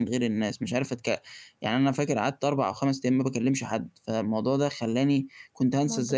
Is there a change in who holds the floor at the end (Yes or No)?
No